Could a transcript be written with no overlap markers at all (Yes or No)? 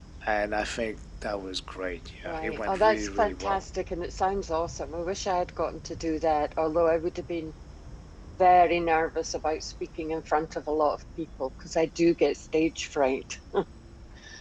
No